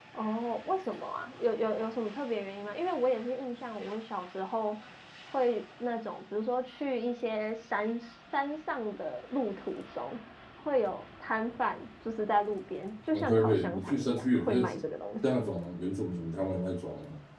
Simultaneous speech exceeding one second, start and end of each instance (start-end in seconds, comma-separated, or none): 13.1-14.7